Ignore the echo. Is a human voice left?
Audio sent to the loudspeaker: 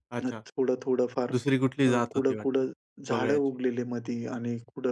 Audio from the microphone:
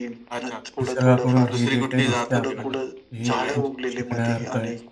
Yes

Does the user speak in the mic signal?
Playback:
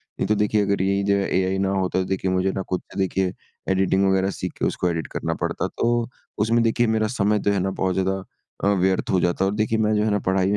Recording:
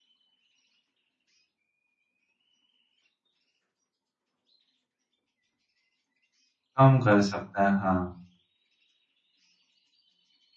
Yes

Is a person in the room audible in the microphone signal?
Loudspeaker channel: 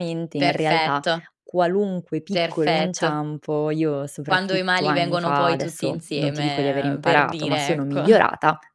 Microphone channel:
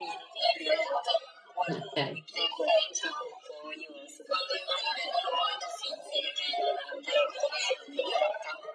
Yes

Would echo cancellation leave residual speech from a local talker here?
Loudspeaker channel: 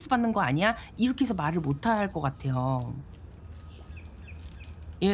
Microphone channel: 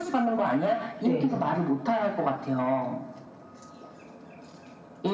Yes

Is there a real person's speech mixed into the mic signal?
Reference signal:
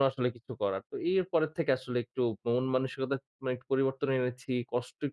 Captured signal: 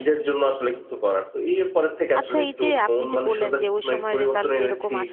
Yes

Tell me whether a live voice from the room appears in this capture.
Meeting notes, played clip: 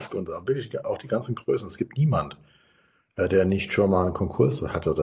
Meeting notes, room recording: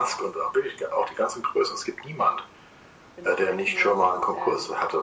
Yes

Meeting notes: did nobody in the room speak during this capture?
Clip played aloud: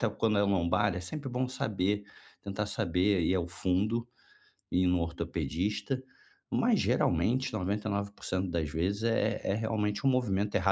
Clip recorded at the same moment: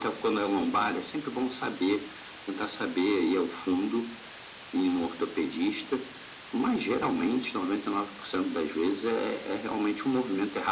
Yes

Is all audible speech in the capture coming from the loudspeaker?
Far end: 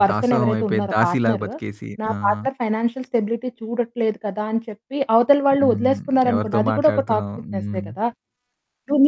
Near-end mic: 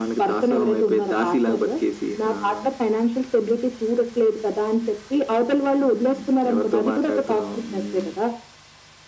Yes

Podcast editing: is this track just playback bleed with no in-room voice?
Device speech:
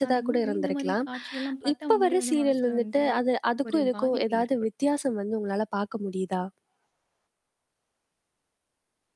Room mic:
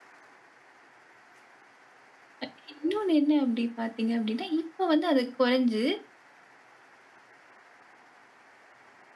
No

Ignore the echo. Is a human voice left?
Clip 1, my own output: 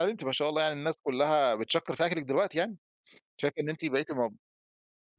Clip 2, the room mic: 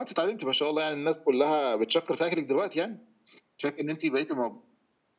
No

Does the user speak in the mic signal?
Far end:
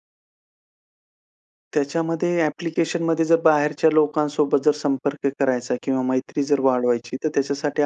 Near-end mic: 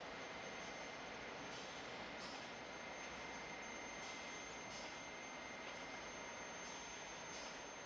No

